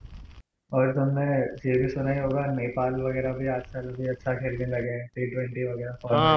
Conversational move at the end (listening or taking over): taking over